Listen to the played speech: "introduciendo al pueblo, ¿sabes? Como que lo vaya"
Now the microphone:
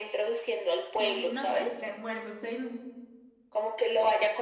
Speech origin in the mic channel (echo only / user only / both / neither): both